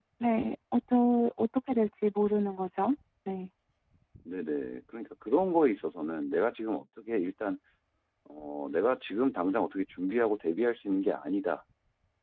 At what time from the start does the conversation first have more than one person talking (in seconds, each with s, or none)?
none